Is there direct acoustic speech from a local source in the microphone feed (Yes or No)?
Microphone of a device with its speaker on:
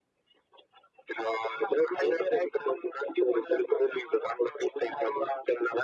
No